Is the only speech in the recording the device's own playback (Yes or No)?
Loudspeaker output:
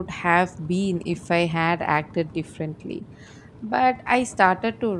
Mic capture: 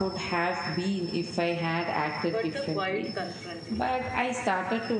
No